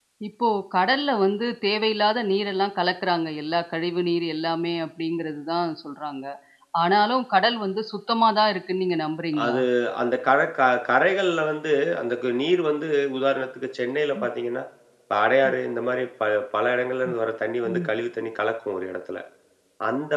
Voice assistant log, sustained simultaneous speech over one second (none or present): none